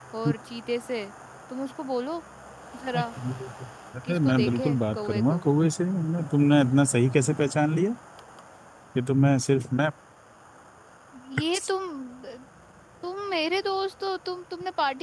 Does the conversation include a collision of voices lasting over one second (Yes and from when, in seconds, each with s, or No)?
Yes, from 4.1 s